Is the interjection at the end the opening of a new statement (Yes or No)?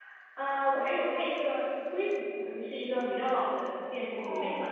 Yes